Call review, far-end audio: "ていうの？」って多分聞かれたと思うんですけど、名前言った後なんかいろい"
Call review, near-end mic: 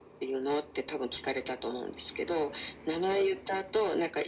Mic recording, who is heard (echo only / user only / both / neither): echo only